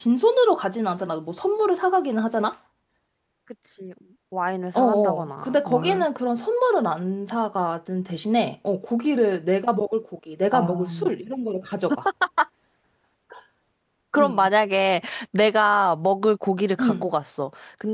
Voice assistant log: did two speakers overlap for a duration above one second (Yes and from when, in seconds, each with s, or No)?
Yes, from 4.7 s